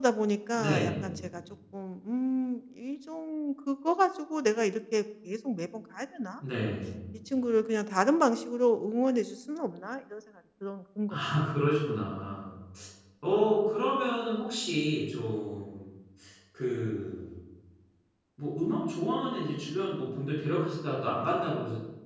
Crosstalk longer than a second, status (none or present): none